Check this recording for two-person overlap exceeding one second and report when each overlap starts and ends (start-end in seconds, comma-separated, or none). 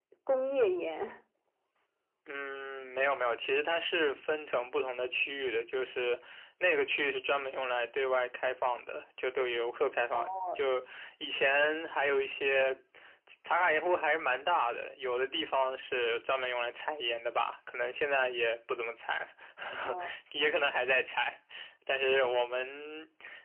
none